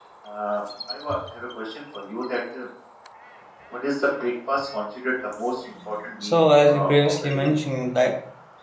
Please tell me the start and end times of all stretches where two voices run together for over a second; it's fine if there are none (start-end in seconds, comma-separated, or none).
6.2-7.4